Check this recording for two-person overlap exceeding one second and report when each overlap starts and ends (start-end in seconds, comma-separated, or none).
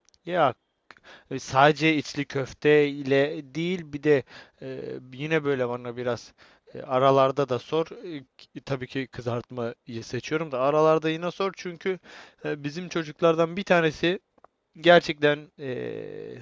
none